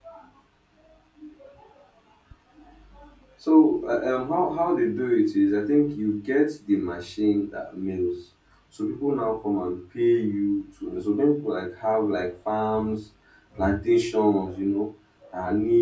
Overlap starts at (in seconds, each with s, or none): none